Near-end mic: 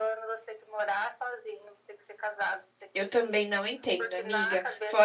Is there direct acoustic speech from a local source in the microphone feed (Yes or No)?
Yes